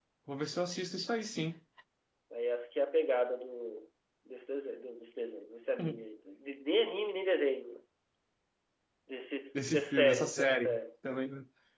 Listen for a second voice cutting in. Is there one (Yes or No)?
Yes